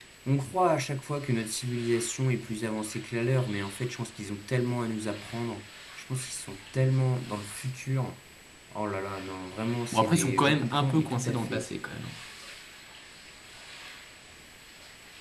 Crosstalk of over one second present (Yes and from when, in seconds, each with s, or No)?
Yes, from 9.9 s